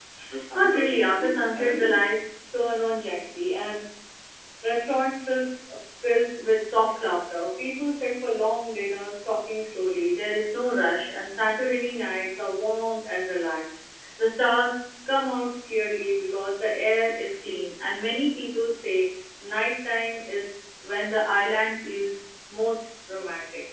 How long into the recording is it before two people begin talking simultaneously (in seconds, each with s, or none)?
0.5 s